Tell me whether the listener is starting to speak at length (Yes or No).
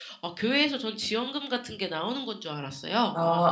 Yes